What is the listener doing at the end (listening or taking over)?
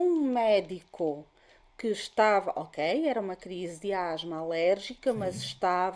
listening